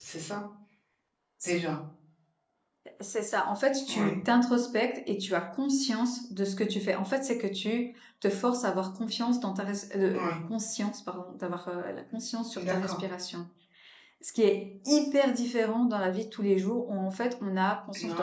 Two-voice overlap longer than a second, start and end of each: none

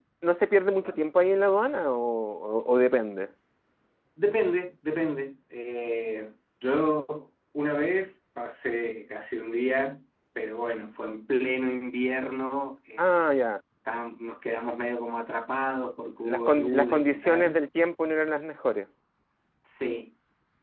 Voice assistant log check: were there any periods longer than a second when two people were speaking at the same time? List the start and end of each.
16.3-17.6

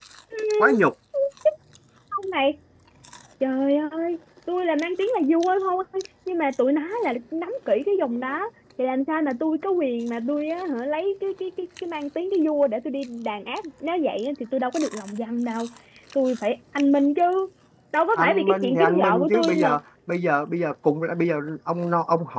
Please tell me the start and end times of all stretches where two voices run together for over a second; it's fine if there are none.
18.2-19.8

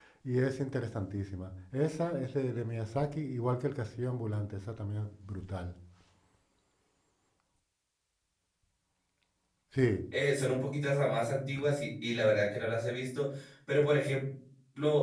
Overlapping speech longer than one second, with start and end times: none

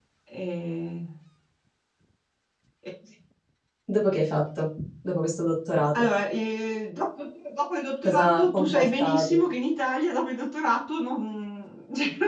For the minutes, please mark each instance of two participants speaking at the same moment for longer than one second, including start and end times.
8.0-9.4

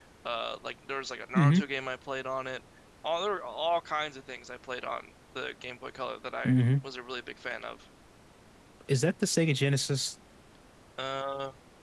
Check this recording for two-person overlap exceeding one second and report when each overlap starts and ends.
none

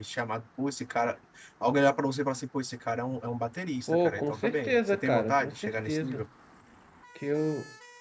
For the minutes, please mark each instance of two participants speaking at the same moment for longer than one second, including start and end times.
3.9-6.2

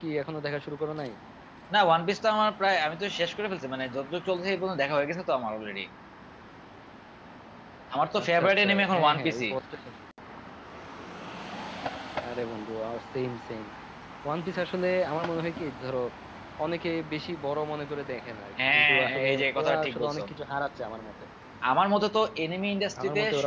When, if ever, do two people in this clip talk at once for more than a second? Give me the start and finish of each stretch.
8.2-9.4, 18.7-20.2

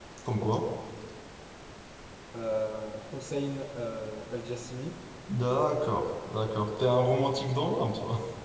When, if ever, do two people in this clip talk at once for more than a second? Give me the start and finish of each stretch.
none

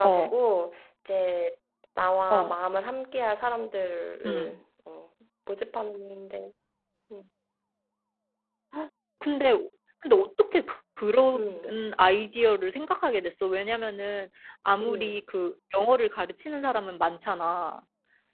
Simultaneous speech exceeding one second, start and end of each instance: none

